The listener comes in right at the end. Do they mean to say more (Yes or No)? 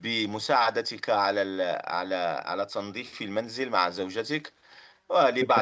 No